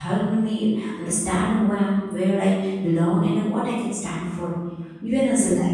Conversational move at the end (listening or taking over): listening